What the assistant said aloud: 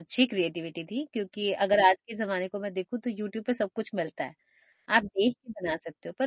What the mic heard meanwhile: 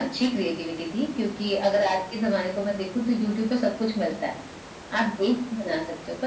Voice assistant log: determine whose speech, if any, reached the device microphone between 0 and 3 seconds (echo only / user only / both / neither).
echo only